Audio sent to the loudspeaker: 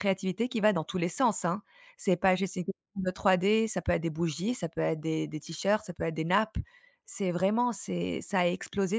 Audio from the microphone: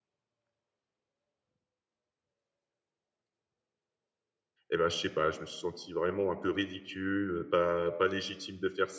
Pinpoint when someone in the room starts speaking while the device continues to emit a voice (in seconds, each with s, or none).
4.7 s